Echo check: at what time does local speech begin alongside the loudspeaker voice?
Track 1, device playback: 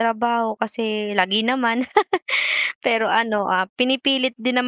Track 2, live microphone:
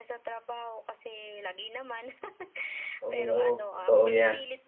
3 s

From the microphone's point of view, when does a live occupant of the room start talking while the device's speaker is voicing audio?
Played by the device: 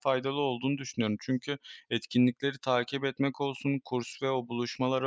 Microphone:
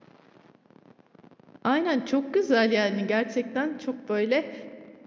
2 s

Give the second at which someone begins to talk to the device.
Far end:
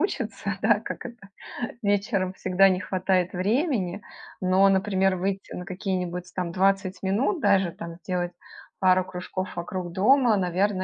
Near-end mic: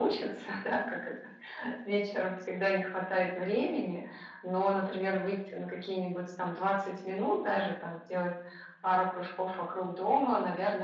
none

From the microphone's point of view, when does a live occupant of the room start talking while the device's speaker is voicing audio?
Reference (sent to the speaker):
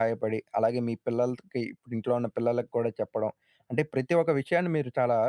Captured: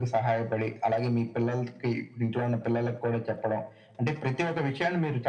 none

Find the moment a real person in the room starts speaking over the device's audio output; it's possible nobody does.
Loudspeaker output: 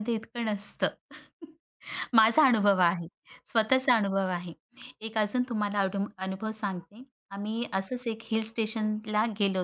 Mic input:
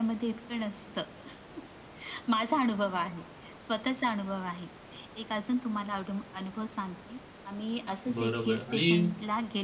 8 s

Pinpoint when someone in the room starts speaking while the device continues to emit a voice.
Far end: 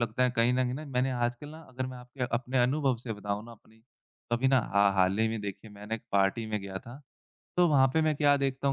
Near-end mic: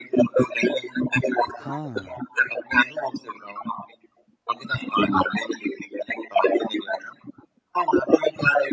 2 s

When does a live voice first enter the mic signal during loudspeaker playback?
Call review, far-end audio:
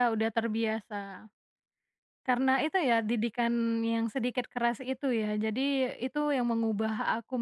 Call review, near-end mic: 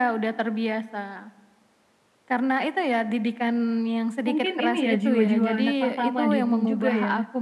4 s

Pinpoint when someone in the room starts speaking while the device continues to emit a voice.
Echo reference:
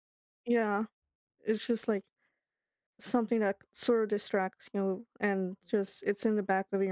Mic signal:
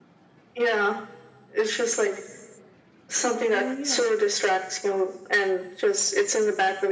4 s

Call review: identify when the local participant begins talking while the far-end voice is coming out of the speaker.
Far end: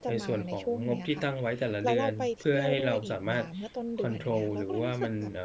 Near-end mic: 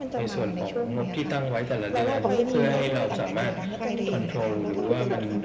2 s

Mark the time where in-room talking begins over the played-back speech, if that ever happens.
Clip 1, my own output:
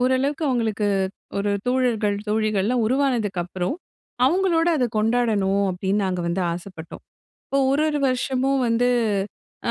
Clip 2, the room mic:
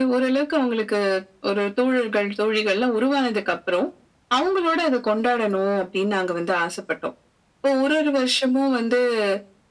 none

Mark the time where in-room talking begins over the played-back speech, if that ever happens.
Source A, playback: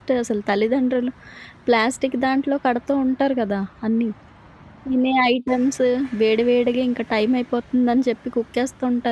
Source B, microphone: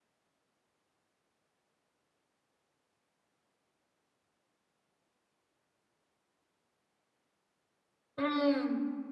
8 s

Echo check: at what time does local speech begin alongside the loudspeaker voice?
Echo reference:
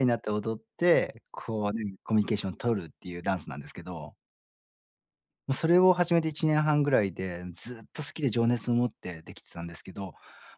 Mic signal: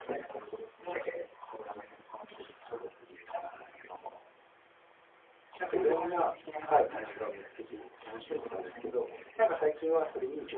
6 s

